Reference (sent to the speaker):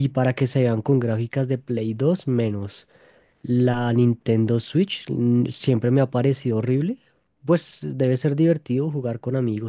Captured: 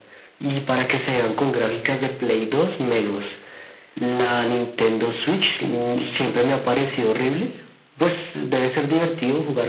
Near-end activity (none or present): none